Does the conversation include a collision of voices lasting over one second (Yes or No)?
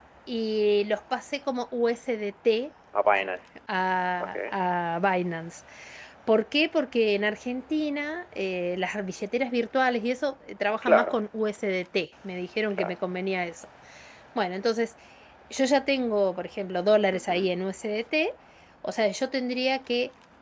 No